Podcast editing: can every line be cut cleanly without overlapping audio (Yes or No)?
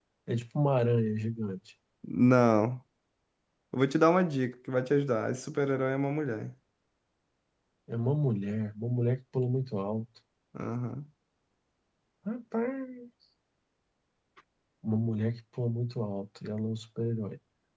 Yes